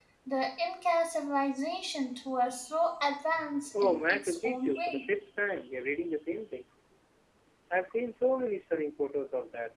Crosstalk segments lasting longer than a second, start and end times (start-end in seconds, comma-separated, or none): 3.8-5.0